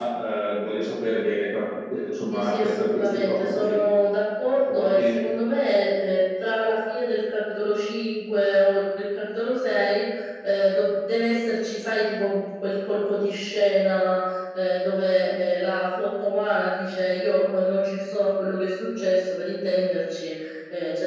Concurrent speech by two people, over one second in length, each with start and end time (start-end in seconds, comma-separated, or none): 2.3-3.8